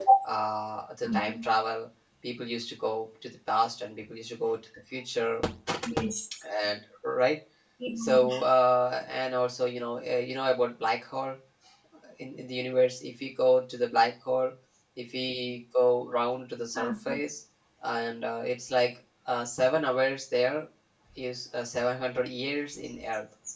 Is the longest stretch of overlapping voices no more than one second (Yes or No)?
Yes